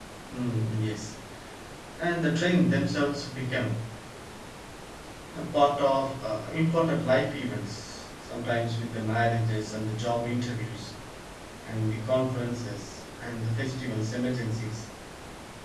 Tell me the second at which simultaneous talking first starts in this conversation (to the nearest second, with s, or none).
none